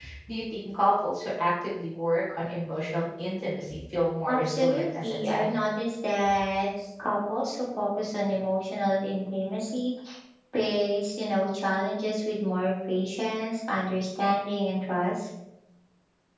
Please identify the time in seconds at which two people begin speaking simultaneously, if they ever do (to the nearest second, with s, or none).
4 s